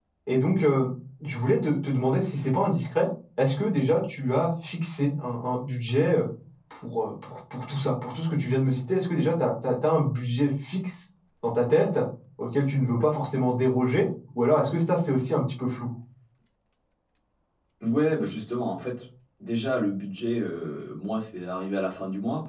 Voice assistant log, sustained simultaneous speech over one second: none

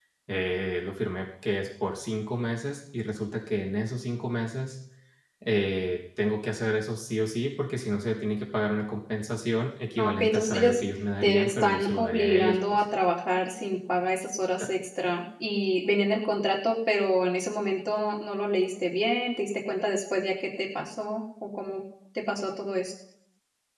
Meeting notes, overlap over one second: present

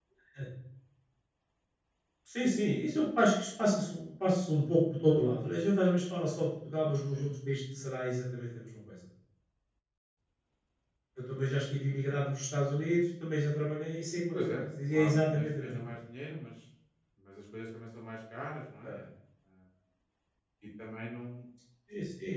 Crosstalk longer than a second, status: present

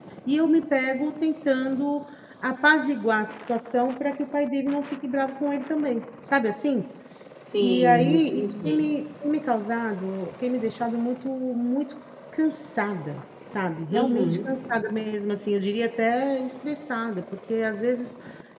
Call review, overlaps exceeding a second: present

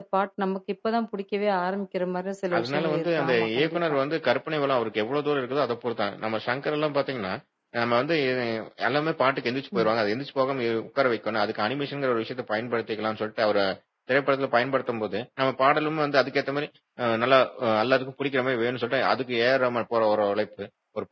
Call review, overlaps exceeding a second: present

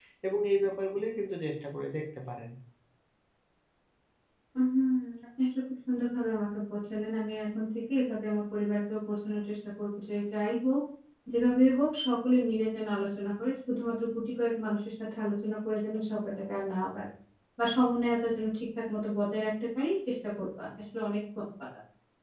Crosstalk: none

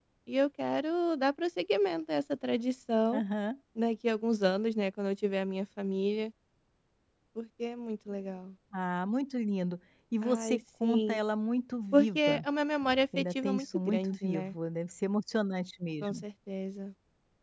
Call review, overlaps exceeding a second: present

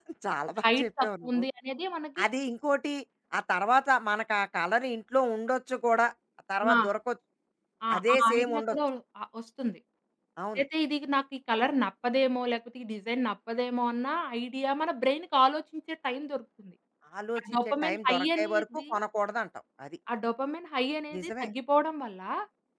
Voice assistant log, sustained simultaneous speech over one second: present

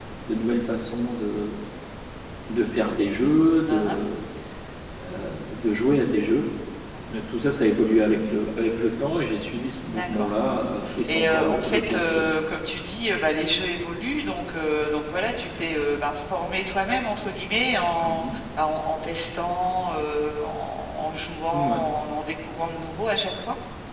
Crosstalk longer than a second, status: present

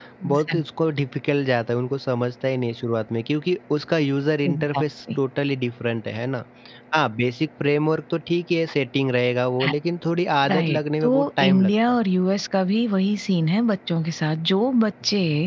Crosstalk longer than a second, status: present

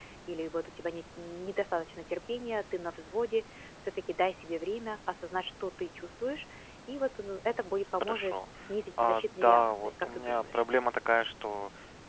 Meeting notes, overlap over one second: present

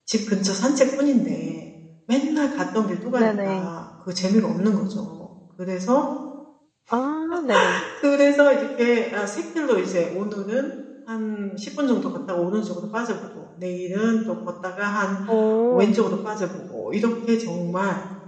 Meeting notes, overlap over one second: none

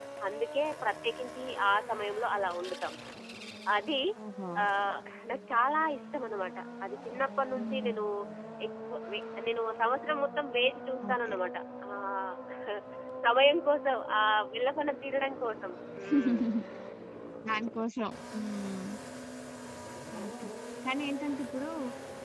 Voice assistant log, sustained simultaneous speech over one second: none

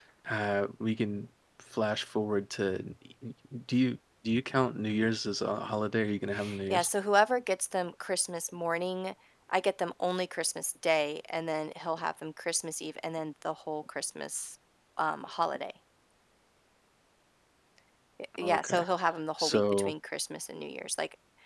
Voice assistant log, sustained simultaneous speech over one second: none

